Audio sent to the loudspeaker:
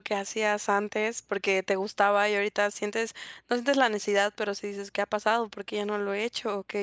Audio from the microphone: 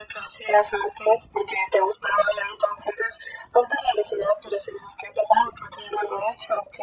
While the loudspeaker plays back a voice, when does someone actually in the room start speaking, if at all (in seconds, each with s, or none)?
none